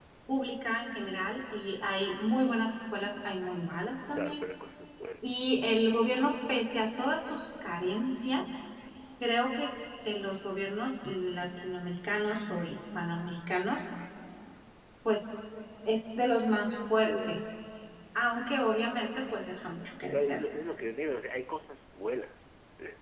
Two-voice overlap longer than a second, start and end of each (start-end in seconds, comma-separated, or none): none